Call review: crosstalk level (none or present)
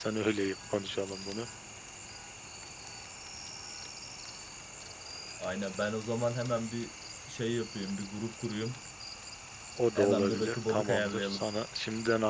present